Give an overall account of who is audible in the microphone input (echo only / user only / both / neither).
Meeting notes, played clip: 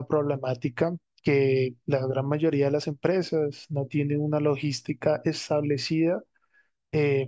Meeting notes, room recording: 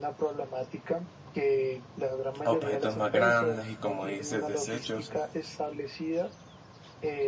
both